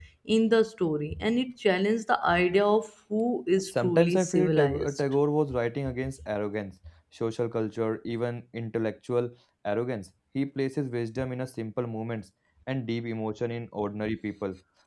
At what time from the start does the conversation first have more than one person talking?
3.6 s

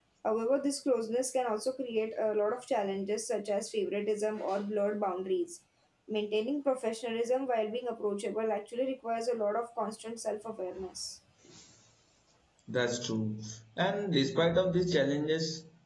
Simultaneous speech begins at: none

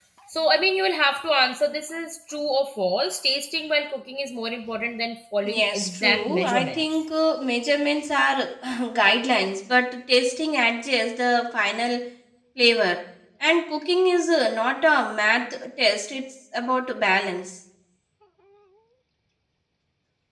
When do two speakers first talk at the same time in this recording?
5.4 s

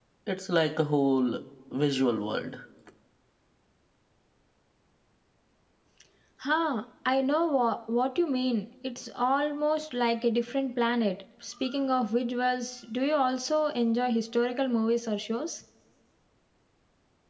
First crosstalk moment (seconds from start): none

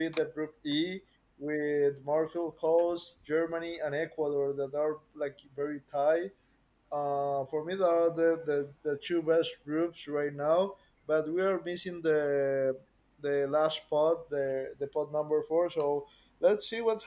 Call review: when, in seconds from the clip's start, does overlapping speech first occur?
none

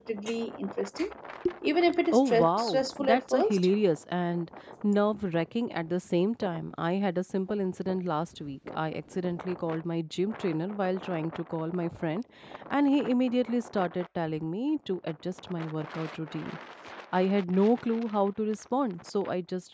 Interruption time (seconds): 2.1 s

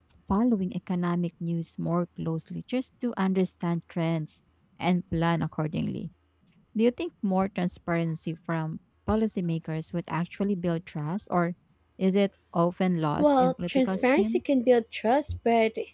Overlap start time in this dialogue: 13.2 s

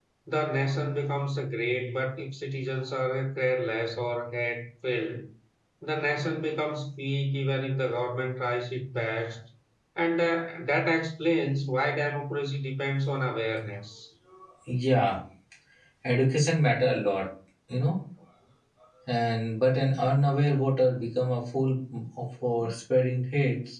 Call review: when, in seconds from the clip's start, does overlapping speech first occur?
none

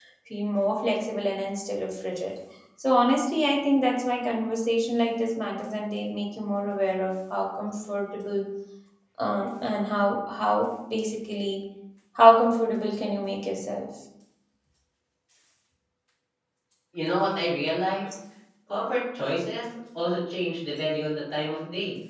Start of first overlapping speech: none

